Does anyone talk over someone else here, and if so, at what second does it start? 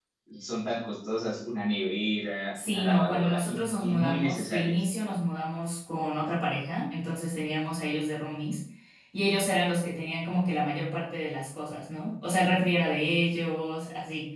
2.5 s

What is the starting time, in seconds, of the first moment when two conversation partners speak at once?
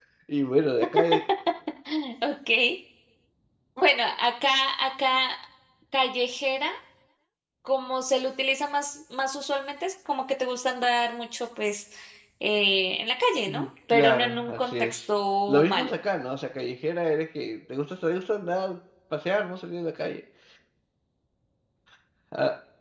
13.5 s

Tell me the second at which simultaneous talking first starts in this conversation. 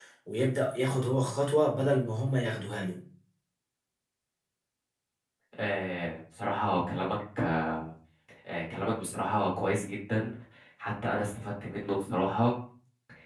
none

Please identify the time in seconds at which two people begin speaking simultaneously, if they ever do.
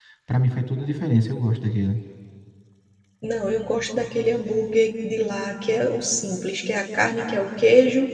none

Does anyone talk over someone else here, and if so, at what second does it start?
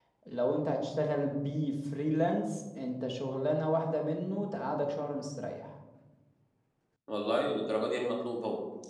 none

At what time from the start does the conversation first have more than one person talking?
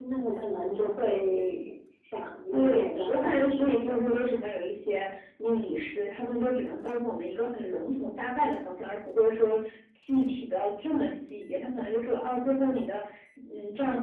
2.5 s

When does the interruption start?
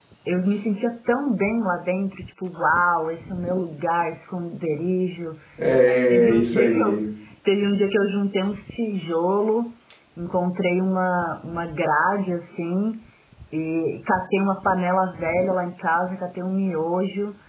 5.7 s

